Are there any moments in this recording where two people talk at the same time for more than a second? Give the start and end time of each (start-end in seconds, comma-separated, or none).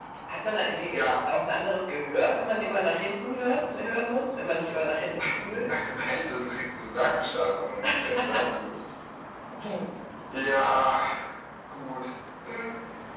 none